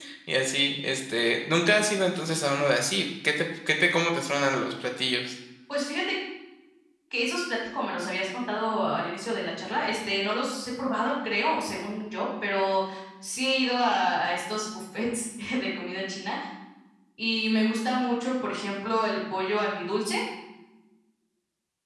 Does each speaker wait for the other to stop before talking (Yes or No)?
Yes